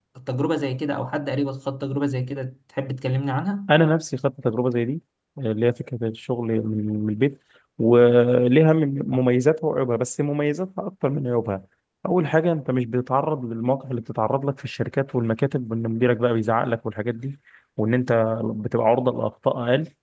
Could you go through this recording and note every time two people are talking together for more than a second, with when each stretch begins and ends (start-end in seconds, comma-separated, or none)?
none